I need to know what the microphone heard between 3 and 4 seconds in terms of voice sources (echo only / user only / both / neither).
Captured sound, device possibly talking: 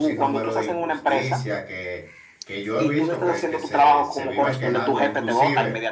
both